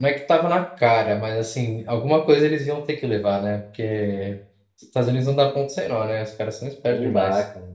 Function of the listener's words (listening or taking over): taking over